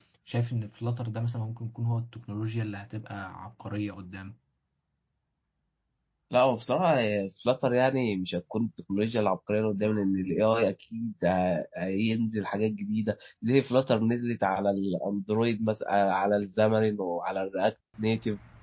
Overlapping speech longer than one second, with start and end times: none

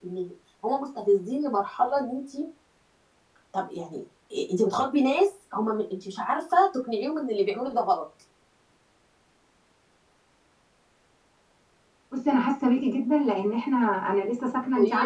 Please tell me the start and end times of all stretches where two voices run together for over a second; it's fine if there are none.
none

